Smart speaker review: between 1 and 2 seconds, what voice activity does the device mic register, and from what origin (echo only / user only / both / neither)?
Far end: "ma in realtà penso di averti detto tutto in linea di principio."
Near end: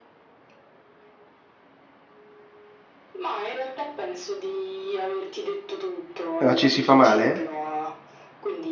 neither